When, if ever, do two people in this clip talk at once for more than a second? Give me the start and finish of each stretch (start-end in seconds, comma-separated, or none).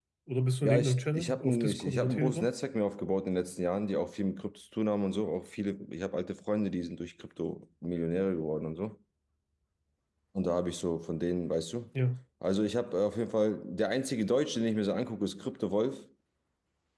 0.6-2.5